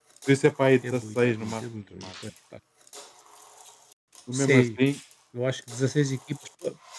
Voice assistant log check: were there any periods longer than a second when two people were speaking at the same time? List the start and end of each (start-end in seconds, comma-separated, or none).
0.9-2.1